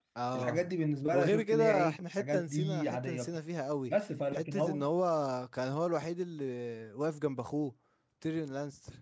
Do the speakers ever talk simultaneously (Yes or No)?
Yes